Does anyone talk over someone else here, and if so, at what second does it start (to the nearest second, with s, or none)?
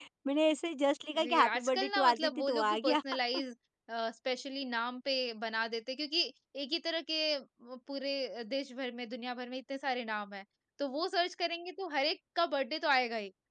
1 s